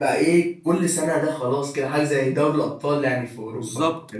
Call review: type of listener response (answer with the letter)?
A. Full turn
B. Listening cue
A